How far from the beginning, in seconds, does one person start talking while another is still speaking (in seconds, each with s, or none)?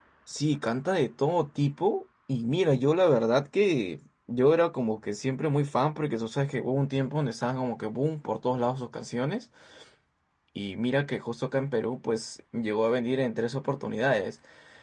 none